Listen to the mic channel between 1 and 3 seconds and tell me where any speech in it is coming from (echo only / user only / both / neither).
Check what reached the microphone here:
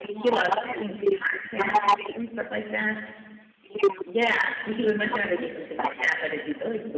both